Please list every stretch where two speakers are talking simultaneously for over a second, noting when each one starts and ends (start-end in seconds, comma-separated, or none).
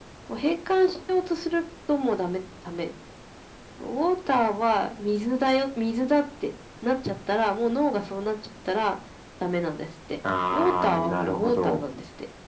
10.5-11.8